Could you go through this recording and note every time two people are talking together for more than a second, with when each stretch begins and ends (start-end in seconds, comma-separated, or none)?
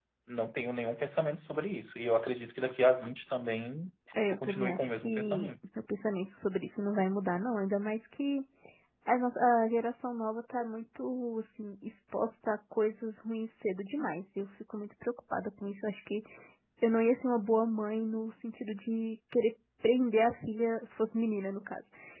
4.3-5.5